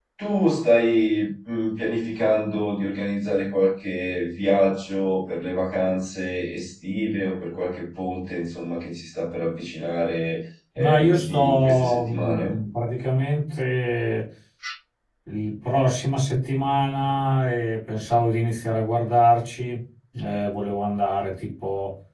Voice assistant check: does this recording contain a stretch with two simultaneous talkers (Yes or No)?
Yes